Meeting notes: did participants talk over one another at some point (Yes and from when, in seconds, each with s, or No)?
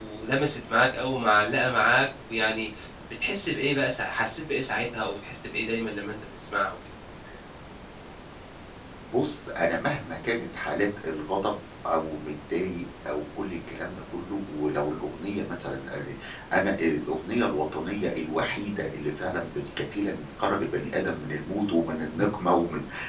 No